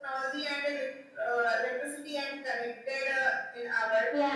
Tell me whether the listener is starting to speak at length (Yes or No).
Yes